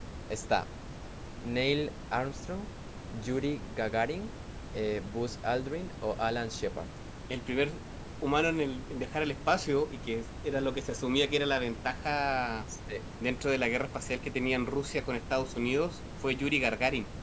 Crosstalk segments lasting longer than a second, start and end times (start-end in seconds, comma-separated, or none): none